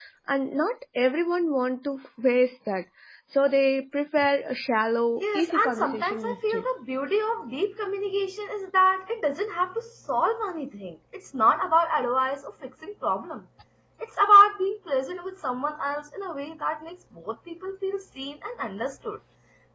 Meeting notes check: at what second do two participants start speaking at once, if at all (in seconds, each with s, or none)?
5.2 s